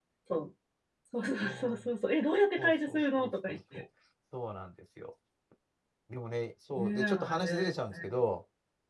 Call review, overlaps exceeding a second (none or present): present